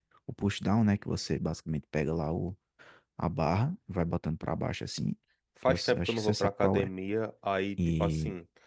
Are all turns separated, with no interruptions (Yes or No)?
No